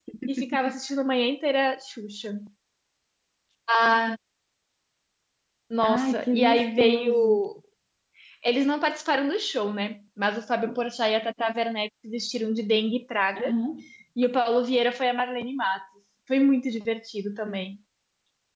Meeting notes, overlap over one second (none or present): present